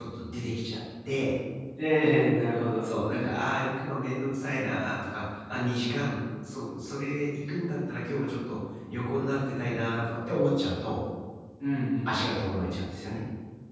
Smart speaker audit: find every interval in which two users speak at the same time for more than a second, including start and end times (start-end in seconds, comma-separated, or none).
none